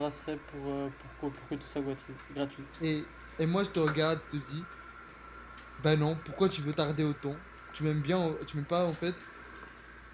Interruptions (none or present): none